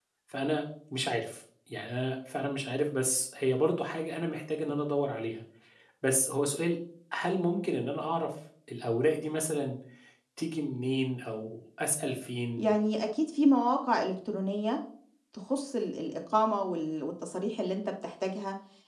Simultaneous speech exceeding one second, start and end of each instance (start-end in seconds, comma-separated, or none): none